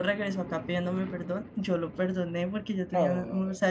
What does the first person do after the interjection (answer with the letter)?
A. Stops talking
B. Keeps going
B